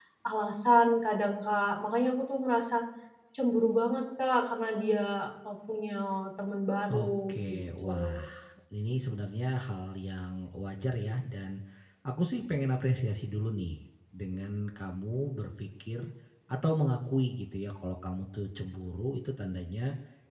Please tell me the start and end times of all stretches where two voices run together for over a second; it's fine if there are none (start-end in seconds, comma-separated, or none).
6.9-8.2